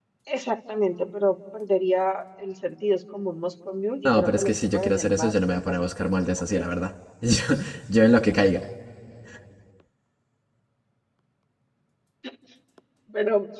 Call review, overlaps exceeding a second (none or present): present